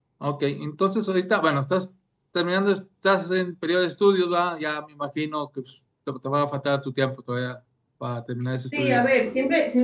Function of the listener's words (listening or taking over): taking over